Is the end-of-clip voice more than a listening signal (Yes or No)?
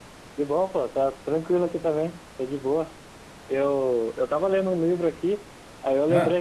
No